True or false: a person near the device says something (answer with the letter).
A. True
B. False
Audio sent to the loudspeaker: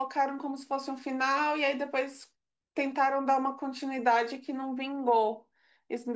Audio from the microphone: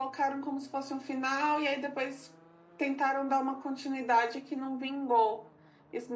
B